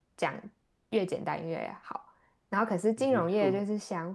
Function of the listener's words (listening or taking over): listening